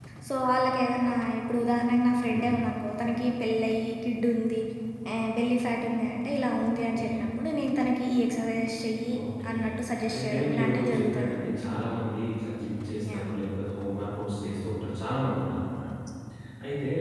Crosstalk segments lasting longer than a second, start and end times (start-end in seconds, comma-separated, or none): 10.1-11.5